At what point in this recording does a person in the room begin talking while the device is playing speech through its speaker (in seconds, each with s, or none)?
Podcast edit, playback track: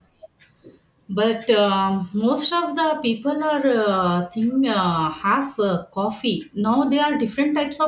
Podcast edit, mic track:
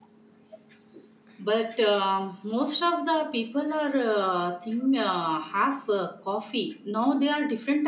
none